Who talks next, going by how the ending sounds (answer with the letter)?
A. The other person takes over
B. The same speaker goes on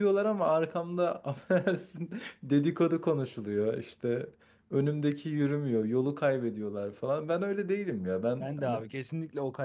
A